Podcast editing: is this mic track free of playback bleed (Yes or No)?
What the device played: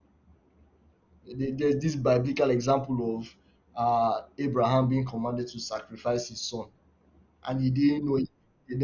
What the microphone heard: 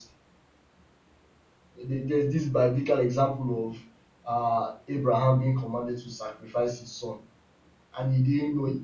No